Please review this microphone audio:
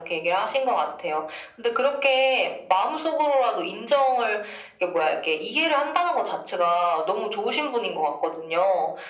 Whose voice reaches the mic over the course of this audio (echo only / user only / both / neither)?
echo only